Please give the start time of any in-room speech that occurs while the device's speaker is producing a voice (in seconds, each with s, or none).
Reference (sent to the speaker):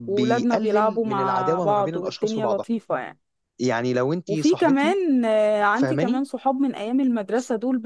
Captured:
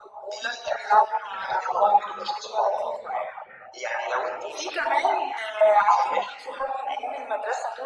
none